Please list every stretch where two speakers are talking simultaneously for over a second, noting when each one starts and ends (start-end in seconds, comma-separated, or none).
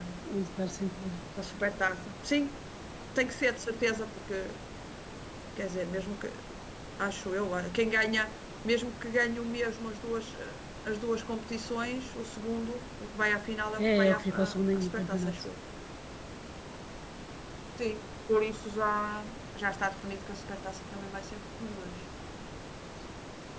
14.0-15.4